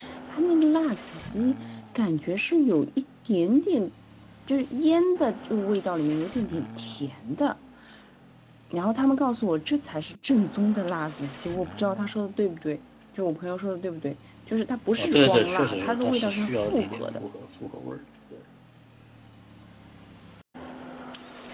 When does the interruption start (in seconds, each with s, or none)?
15.0 s